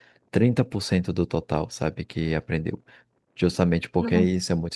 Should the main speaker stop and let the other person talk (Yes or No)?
No